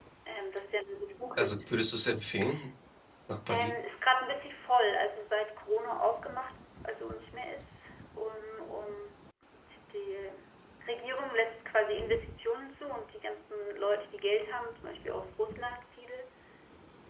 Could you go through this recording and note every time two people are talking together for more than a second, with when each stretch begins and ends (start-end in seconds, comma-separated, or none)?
none